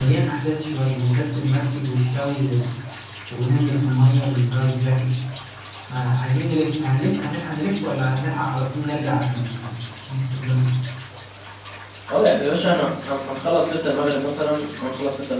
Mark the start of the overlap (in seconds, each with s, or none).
none